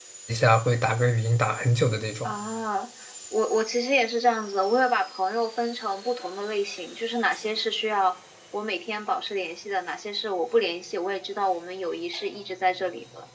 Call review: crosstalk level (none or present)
none